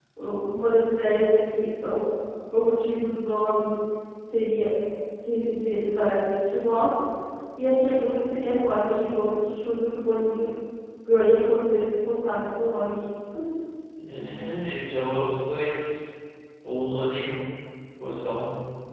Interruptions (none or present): none